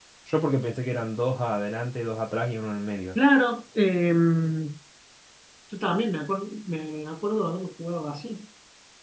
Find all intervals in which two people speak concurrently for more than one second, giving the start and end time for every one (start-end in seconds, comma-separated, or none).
none